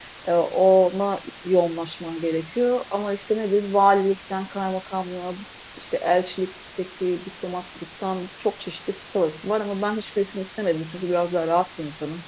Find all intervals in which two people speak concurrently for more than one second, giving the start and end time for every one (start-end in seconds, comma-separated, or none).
none